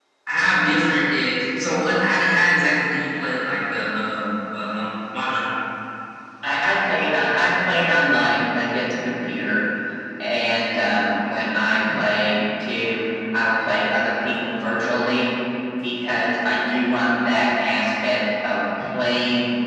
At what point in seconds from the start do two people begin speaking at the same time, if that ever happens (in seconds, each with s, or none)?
none